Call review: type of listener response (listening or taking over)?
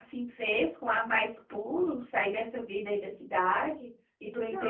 taking over